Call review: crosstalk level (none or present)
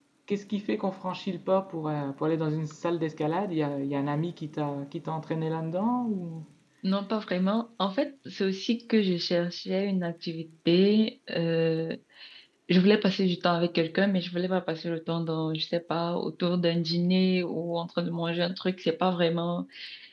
none